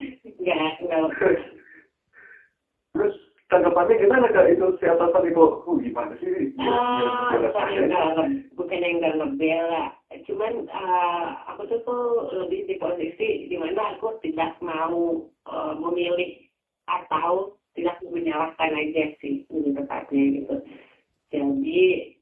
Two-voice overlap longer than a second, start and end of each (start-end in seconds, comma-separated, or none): 6.6-8.0